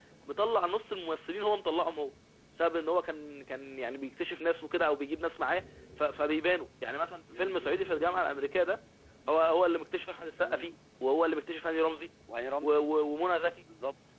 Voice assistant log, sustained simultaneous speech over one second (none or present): none